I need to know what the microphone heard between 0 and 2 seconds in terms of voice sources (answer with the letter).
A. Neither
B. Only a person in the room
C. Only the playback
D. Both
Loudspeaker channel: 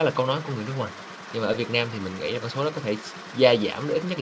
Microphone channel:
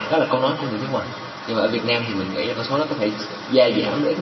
C